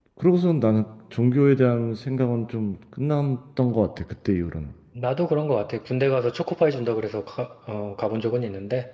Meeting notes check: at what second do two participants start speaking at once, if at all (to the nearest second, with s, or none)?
none